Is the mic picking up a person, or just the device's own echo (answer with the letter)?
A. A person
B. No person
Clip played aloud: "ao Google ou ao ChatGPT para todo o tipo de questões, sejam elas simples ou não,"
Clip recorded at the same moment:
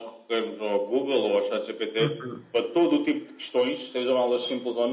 A